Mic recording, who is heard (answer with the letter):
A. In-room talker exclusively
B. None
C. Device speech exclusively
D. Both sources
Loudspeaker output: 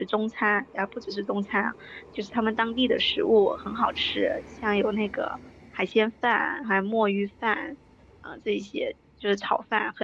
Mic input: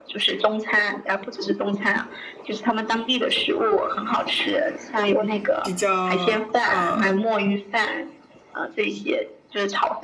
D